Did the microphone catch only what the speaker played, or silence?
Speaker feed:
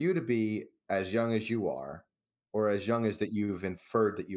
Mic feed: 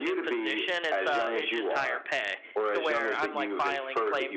No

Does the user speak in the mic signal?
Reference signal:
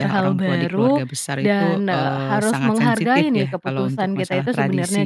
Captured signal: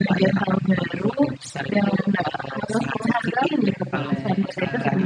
Yes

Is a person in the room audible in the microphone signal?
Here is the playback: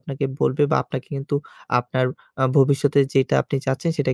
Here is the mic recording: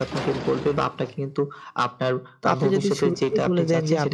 Yes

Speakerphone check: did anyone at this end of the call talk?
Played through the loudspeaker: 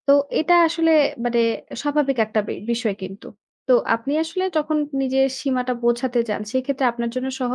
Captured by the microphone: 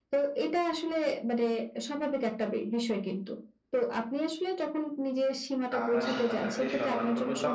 Yes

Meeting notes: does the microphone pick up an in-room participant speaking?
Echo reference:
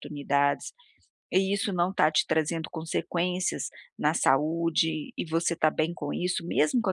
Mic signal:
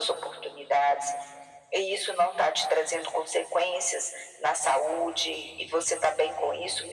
No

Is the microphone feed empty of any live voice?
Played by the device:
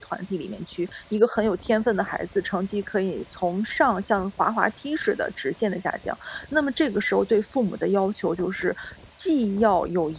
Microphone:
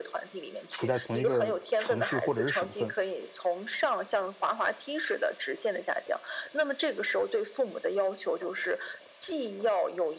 No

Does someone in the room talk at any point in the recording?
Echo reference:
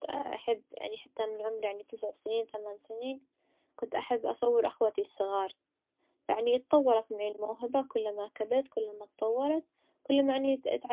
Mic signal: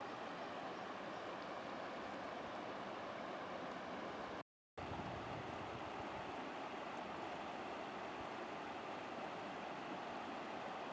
No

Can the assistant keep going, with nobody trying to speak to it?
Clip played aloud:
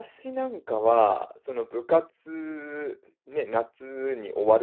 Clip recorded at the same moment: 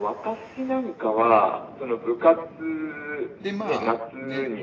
No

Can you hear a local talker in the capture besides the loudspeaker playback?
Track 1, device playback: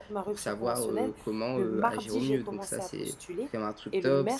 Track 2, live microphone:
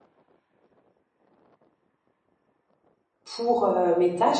Yes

